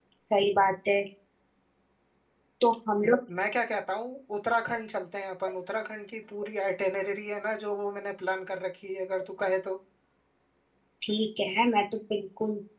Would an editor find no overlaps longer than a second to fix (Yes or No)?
Yes